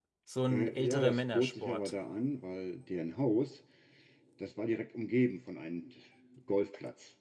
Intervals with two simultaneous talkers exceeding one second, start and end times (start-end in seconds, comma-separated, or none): 0.5-1.9